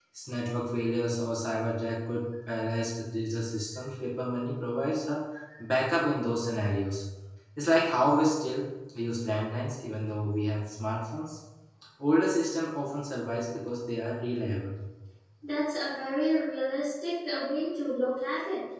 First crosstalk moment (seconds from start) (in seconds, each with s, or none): none